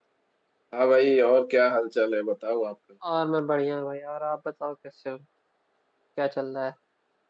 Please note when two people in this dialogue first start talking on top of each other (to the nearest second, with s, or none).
none